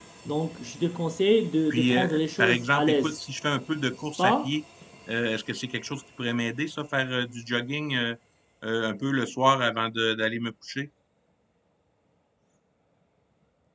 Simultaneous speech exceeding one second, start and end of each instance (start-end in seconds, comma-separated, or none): 1.7-3.2